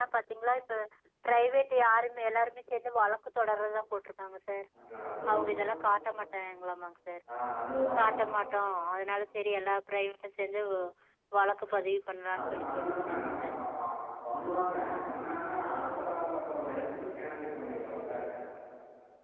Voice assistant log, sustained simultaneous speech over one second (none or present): none